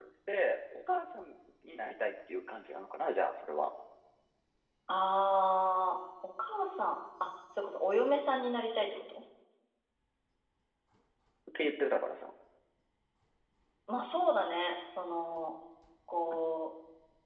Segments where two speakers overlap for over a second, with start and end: none

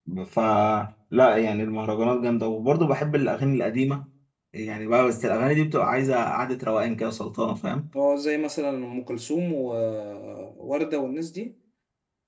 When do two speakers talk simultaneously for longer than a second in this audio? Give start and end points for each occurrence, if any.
none

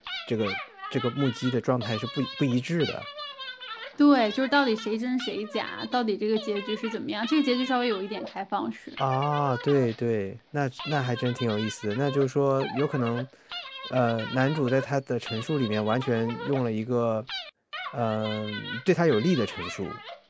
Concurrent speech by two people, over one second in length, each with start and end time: none

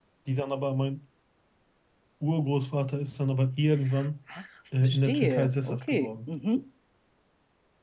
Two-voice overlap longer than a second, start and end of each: 4.8-6.3

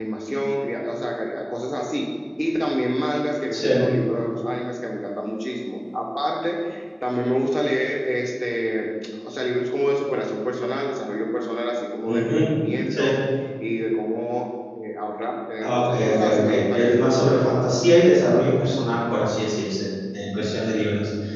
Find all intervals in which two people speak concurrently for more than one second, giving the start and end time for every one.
15.6-17.0

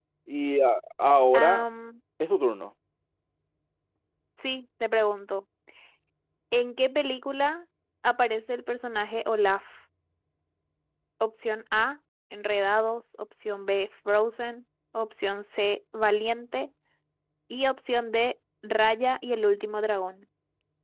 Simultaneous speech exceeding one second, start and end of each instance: none

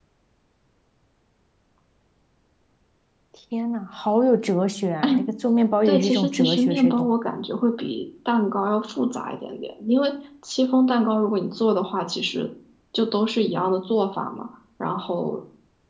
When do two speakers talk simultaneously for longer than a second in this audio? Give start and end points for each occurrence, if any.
5.8-7.1

